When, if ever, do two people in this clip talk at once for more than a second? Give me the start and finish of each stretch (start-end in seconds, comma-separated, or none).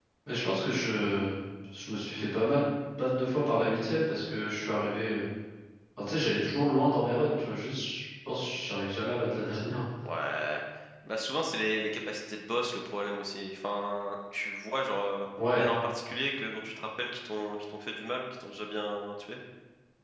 none